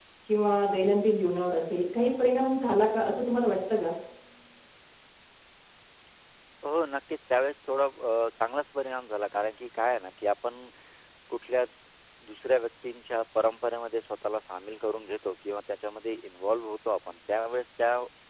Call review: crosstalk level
none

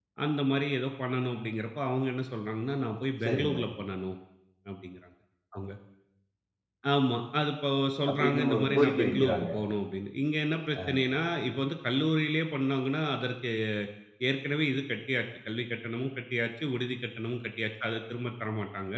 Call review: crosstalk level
present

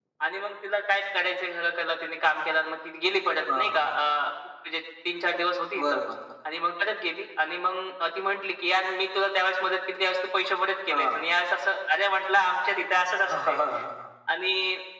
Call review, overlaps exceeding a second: none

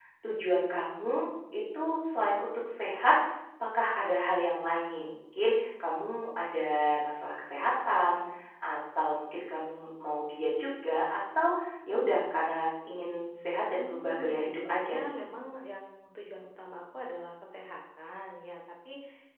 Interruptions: present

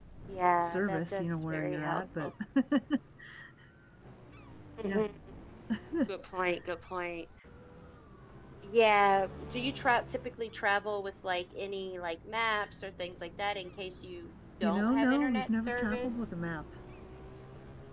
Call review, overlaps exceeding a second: present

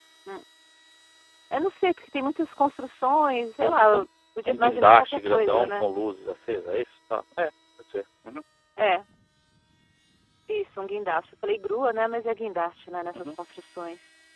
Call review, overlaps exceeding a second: present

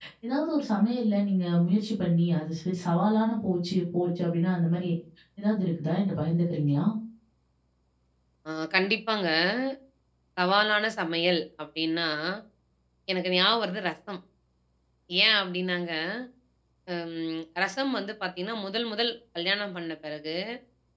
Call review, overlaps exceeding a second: none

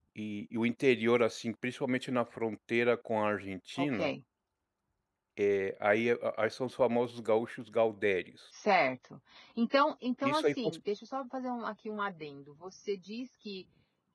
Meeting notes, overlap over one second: none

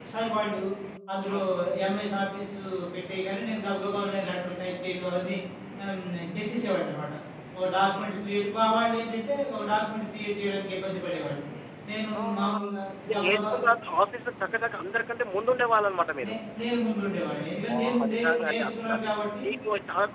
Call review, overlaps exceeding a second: present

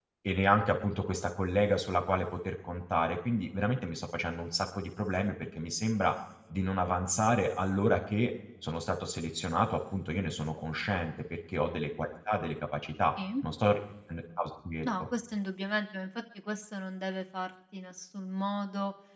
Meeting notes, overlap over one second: none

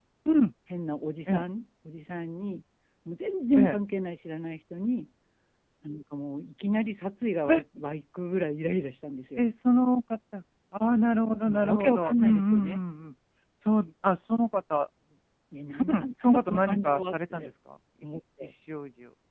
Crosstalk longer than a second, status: present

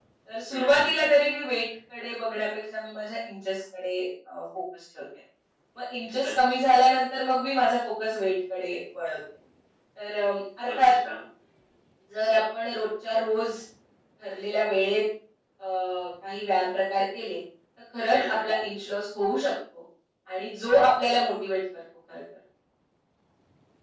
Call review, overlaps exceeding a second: none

